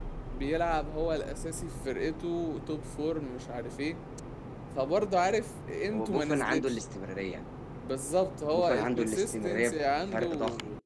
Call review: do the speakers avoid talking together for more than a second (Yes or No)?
No